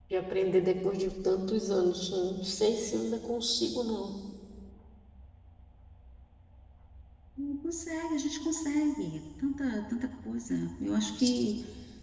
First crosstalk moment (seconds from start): none

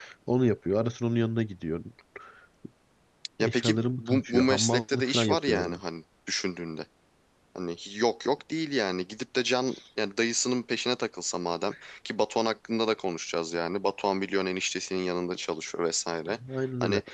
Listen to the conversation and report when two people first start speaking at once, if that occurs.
3.4 s

